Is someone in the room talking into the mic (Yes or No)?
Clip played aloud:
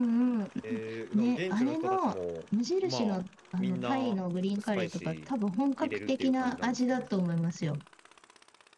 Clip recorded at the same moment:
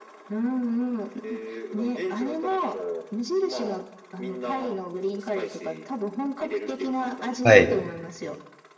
Yes